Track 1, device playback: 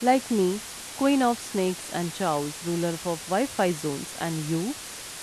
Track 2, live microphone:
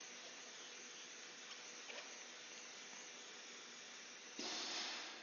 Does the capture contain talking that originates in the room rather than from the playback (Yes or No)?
No